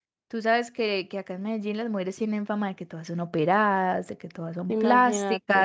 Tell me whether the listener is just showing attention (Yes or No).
Yes